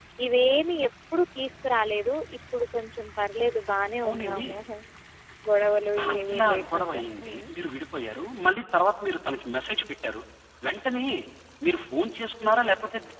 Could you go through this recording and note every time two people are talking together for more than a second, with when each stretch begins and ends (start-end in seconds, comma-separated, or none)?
6.0-7.4